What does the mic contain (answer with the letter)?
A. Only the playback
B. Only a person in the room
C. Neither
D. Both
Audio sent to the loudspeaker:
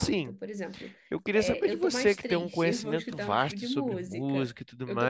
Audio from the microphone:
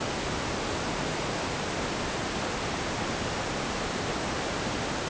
C